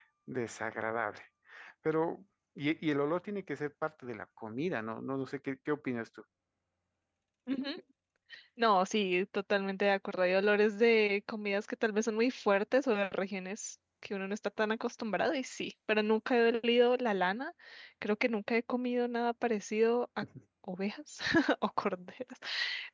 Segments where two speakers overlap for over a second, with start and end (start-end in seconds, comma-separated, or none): none